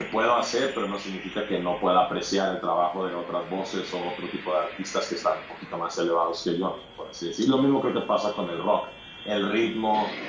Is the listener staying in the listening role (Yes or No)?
Yes